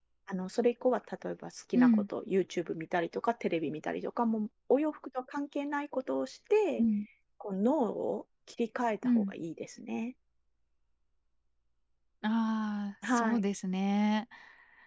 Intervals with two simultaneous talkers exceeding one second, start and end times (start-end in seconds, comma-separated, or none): none